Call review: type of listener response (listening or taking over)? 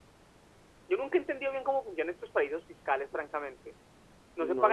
taking over